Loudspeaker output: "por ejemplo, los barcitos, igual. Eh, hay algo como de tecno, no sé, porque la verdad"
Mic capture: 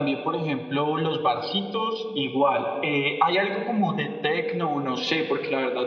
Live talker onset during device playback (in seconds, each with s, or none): none